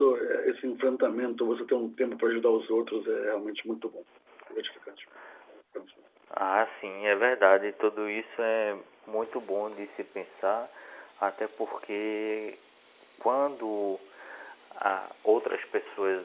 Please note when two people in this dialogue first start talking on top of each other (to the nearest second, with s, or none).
none